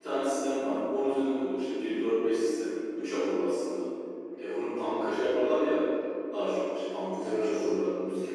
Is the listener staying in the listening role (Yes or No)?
Yes